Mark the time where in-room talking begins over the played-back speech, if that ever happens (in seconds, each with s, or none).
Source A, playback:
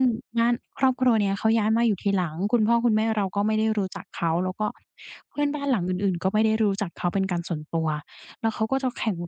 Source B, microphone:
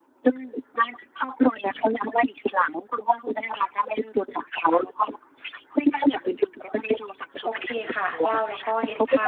7.4 s